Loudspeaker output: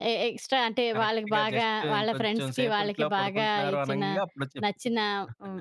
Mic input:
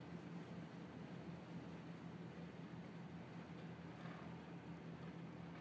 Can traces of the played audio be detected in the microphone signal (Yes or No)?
No